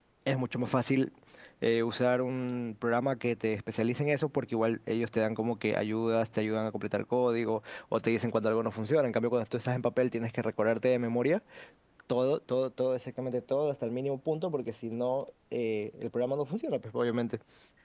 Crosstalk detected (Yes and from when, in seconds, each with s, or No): No